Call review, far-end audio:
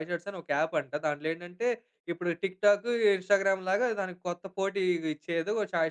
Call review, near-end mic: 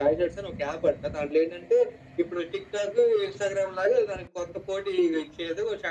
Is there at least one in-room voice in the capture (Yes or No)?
No